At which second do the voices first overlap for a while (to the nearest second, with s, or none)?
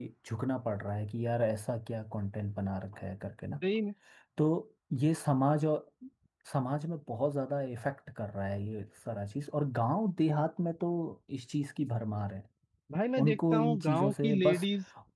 13 s